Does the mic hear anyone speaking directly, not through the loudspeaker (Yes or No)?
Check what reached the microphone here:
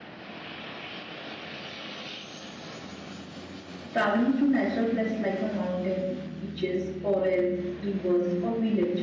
Yes